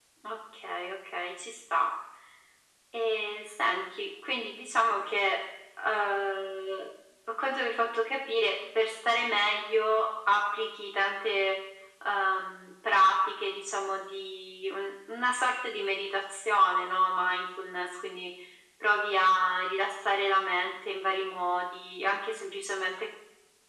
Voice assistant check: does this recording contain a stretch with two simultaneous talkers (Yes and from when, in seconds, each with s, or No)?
No